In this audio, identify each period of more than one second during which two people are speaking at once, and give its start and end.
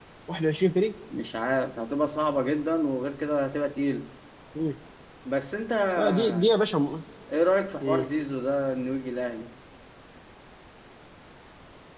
none

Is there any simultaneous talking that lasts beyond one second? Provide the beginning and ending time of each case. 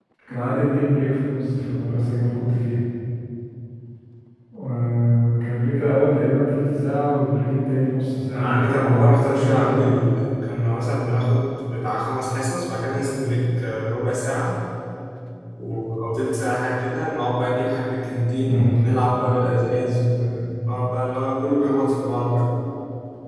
8.4-9.9

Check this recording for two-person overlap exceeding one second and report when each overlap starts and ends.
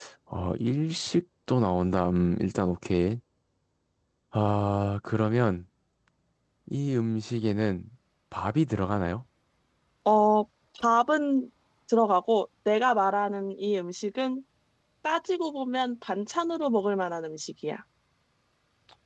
none

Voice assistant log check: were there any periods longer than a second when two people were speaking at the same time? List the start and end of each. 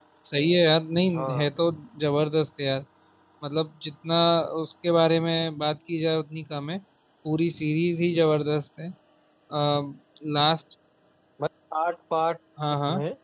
none

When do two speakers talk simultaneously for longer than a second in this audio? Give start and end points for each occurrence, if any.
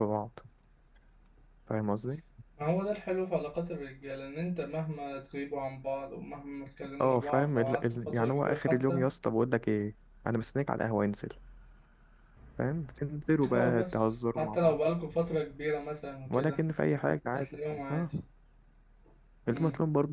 7.0-9.0, 13.5-14.8

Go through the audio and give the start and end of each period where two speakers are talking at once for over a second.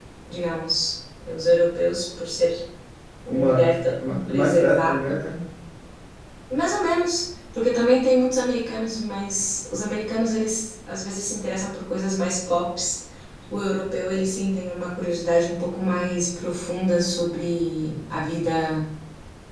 3.3-5.2

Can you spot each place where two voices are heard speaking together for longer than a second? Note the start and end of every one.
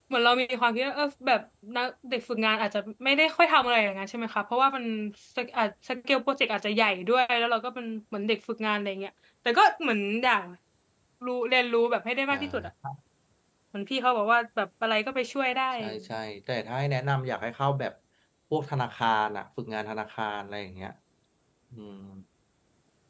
none

